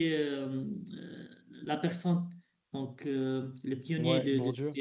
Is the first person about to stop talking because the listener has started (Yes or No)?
Yes